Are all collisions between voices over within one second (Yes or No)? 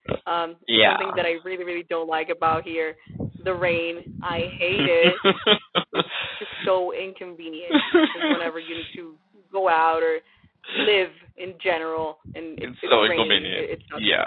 No